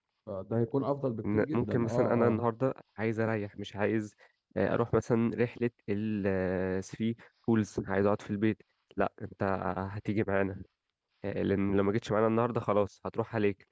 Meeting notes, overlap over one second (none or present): present